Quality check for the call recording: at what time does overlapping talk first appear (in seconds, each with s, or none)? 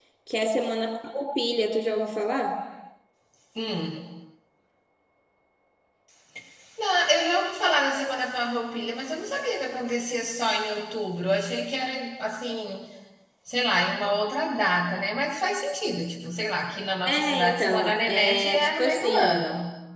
17.1 s